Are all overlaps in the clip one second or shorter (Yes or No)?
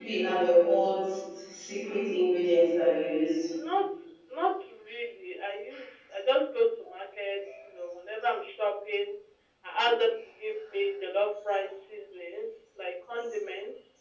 Yes